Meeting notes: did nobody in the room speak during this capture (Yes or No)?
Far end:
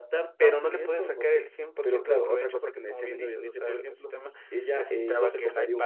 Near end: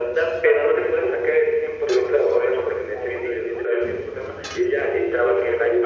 Yes